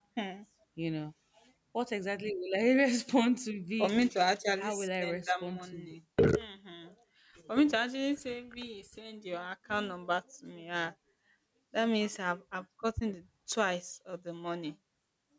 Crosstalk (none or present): present